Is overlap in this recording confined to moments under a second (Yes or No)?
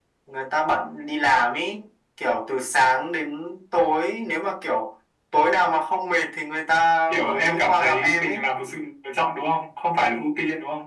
No